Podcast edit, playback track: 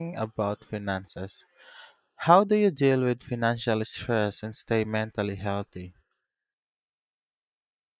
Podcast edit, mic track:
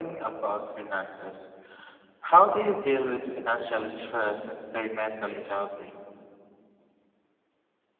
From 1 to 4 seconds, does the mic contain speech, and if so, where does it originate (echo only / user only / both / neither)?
echo only